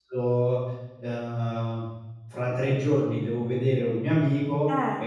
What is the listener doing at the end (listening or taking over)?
listening